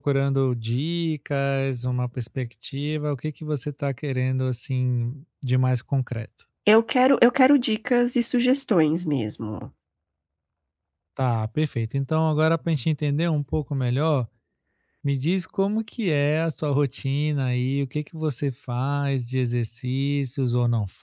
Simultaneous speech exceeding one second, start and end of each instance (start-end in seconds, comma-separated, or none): none